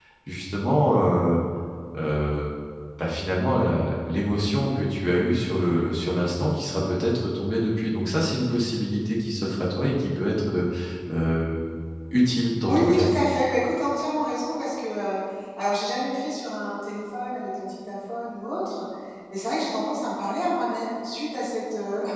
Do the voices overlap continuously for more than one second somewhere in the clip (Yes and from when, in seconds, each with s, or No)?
No